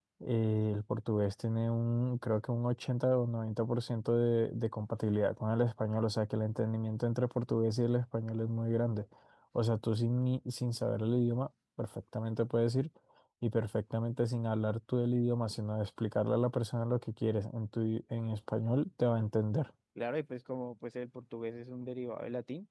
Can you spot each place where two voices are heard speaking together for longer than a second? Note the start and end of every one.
none

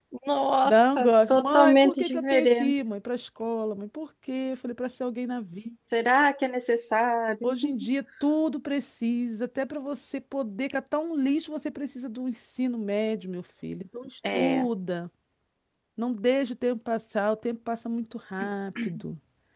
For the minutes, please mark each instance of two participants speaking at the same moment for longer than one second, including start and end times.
0.6-2.7

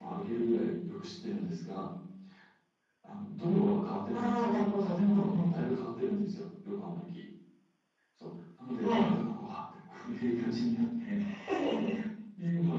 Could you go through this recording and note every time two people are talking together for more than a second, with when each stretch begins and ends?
4.1-5.5

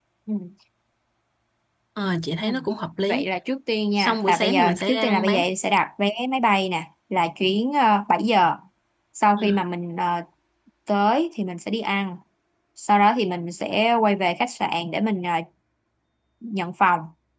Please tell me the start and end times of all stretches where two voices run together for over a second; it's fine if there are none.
4.0-5.4

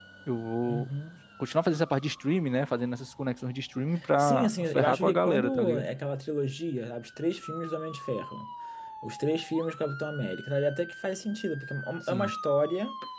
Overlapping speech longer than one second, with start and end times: 4.2-5.9

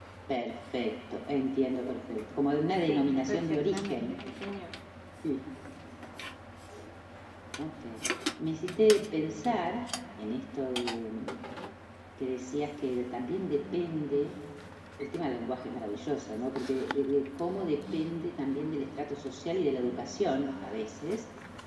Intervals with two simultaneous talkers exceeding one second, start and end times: 2.8-4.2

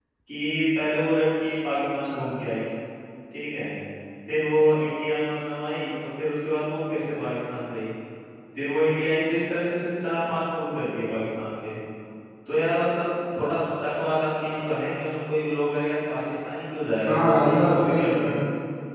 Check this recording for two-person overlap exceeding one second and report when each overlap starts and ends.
17.1-18.4

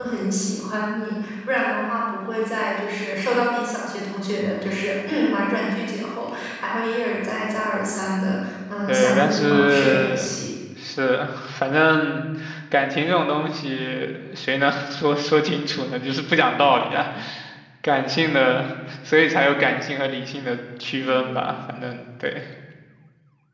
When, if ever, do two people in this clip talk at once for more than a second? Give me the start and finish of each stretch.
8.9-10.4

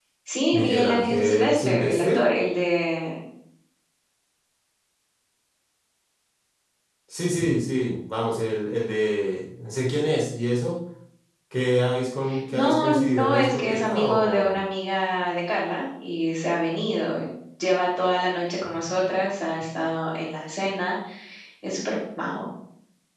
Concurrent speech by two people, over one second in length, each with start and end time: 0.5-2.2, 12.5-14.6

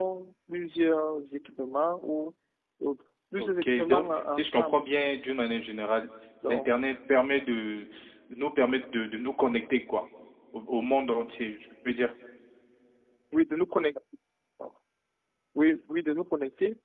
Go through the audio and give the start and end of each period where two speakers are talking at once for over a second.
3.4-4.8

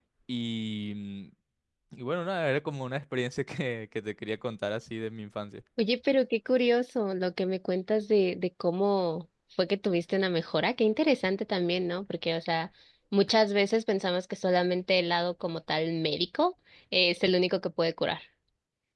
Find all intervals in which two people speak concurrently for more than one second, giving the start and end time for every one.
none

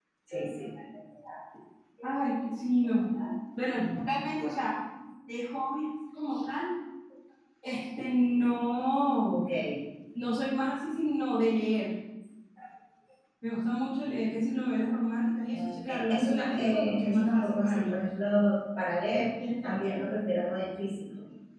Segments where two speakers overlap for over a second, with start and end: 15.5-17.9

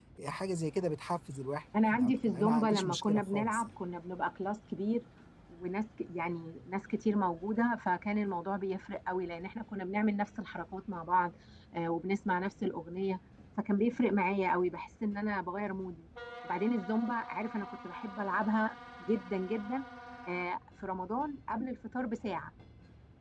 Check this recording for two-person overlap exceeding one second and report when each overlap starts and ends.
1.9-3.7

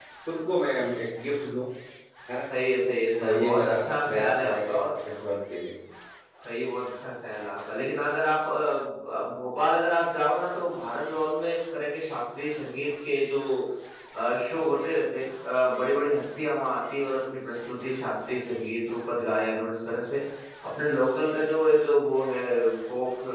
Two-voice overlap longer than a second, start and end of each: 3.2-4.9

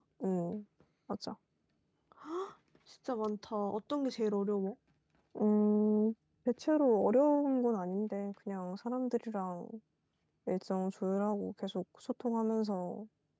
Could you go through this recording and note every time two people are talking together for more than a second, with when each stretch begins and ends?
none

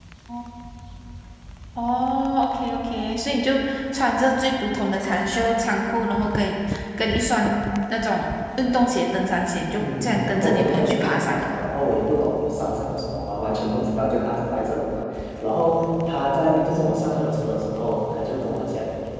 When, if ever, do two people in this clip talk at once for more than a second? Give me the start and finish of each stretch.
9.8-11.6

